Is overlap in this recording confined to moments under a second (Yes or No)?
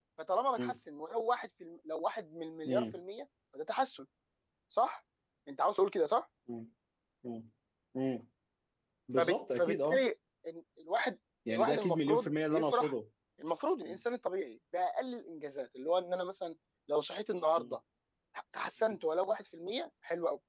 No